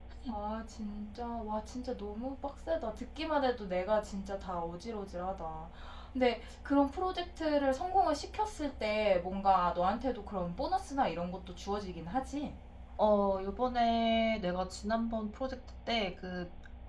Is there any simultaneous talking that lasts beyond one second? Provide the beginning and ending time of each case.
none

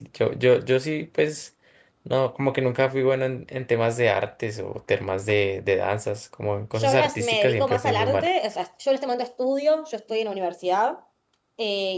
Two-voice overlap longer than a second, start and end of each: 6.8-8.3

